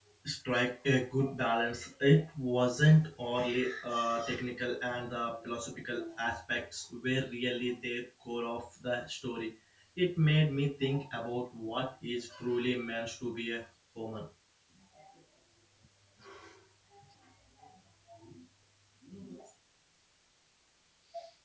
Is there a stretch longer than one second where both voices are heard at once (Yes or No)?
No